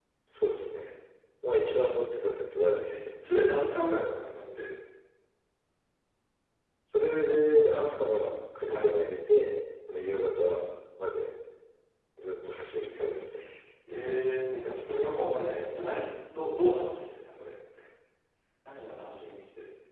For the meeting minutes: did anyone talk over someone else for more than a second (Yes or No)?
No